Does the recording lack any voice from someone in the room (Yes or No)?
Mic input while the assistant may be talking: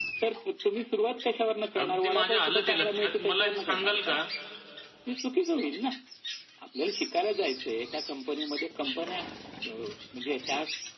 No